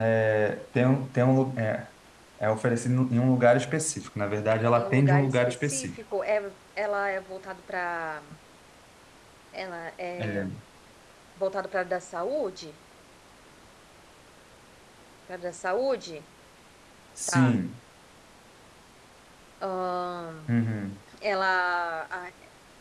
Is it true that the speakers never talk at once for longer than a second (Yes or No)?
No